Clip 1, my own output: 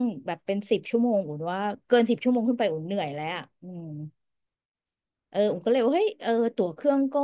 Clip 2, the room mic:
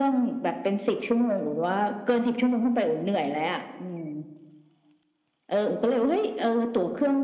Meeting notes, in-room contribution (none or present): none